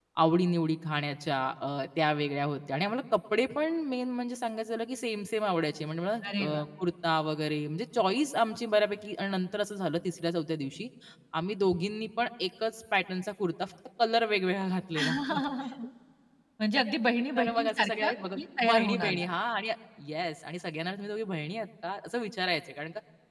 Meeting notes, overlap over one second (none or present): present